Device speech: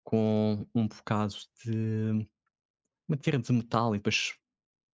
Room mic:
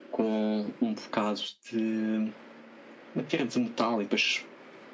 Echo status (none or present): present